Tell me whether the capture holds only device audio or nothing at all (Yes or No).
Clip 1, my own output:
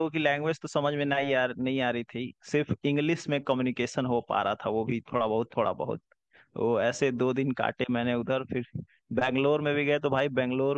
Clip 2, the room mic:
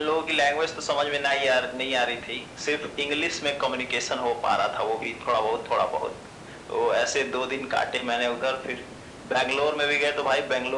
Yes